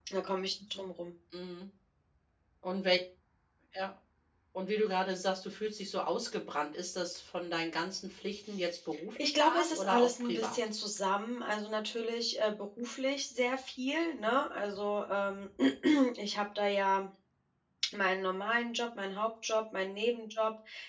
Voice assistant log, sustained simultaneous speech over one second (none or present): present